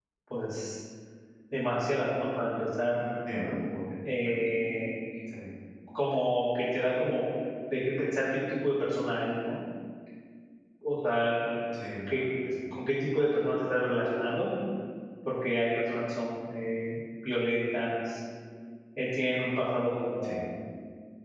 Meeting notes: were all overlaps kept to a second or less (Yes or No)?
Yes